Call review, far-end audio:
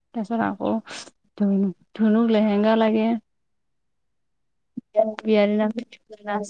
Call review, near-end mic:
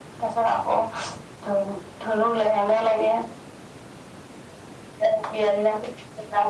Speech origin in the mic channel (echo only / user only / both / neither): echo only